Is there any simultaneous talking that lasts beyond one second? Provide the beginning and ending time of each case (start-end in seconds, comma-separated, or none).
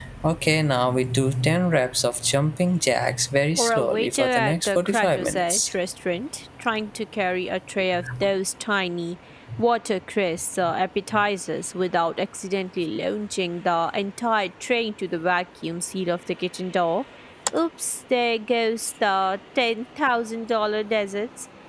3.6-5.7